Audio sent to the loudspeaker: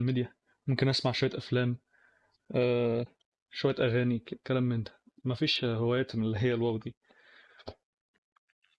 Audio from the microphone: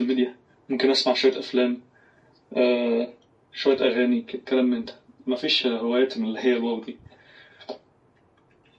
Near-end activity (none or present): none